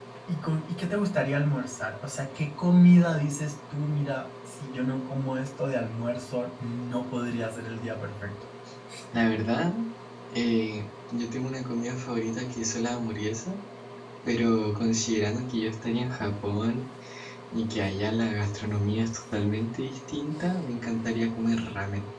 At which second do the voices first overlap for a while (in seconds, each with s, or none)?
none